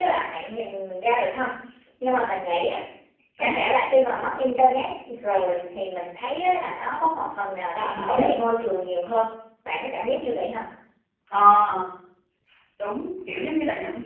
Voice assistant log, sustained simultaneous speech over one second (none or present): none